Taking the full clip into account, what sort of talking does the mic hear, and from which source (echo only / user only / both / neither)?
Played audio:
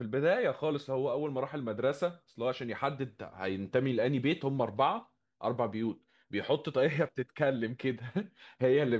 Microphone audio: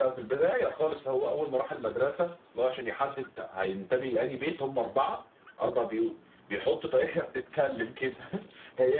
echo only